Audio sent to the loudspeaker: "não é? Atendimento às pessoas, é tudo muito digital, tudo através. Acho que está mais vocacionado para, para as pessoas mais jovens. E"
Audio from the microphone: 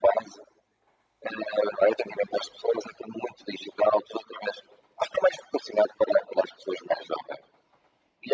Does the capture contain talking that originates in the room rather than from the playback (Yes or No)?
No